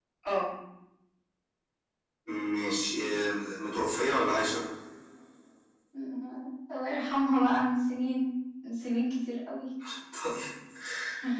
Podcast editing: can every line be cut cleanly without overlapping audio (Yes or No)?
Yes